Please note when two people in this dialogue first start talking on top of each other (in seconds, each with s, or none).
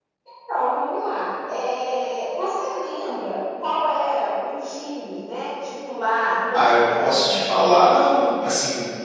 6.5 s